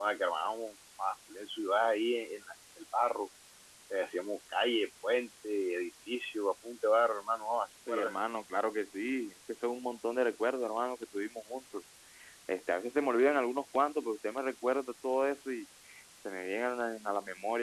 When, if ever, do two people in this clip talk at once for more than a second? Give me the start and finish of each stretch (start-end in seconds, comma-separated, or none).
none